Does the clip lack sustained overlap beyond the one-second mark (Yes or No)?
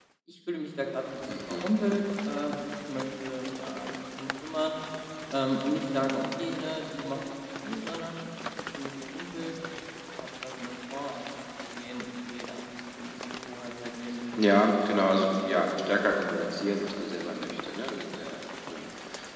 Yes